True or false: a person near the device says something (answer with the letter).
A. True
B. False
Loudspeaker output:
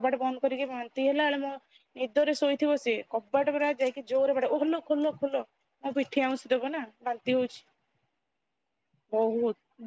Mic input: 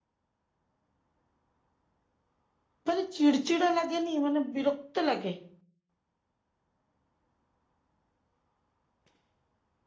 A